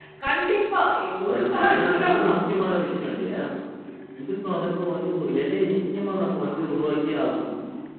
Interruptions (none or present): present